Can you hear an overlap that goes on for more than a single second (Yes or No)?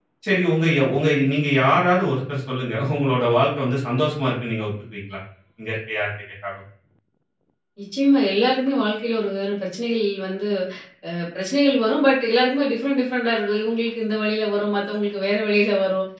No